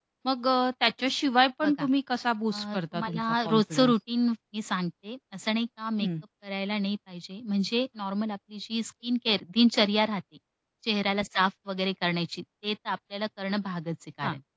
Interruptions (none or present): present